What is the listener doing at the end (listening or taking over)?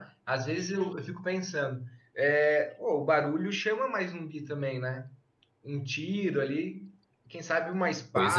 listening